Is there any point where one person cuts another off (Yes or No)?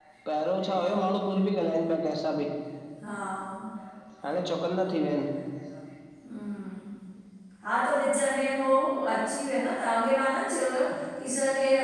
No